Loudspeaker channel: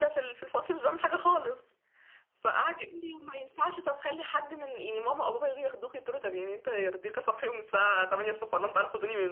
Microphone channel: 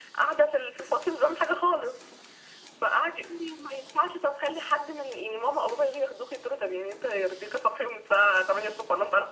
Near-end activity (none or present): none